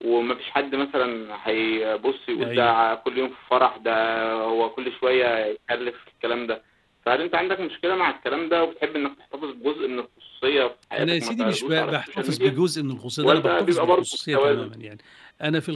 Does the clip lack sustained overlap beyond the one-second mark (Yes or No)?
No